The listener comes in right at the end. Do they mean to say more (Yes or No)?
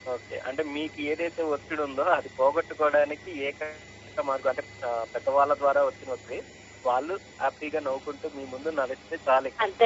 Yes